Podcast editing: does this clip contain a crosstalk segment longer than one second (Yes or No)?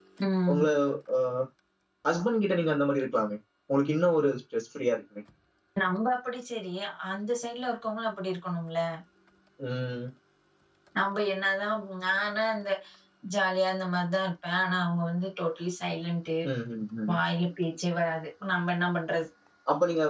No